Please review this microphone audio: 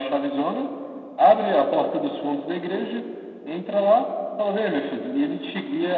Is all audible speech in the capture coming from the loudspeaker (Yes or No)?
Yes